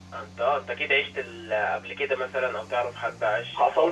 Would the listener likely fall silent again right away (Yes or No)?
No